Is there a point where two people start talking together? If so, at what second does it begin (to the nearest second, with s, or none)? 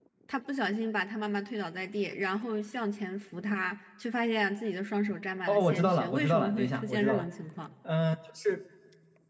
5 s